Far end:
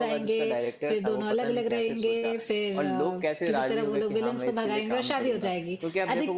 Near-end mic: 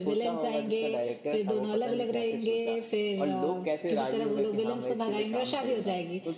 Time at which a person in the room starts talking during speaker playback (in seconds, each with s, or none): none